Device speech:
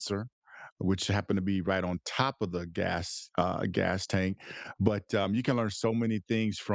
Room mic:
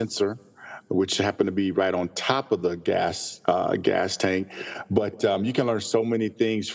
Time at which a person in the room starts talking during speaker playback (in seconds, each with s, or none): none